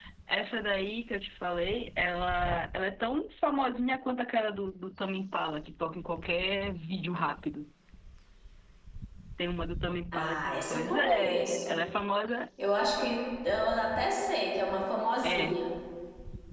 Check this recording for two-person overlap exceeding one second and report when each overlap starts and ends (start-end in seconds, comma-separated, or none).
10.1-11.8